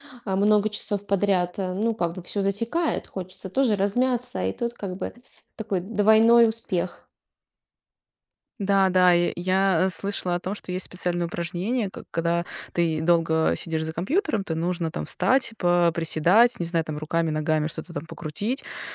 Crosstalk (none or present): none